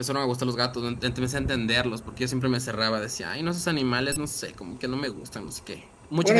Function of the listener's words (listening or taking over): taking over